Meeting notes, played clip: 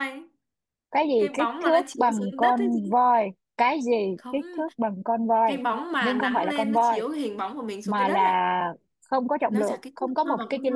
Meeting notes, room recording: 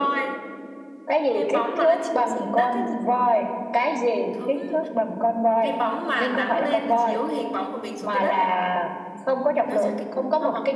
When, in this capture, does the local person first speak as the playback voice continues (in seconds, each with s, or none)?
none